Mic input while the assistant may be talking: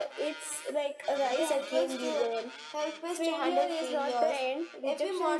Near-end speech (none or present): present